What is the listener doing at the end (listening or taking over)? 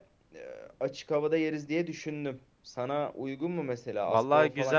taking over